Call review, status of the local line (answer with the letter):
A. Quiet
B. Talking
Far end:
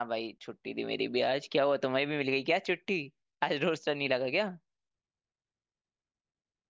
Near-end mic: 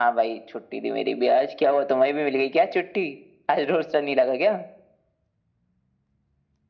A